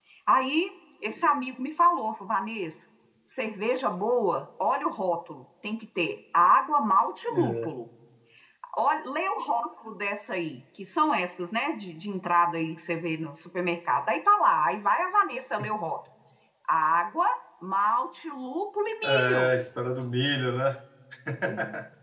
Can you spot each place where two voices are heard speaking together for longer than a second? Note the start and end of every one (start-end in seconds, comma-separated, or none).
none